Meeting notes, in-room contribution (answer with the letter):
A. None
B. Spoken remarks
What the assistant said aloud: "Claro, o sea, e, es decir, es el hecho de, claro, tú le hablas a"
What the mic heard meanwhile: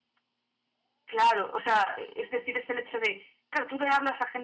A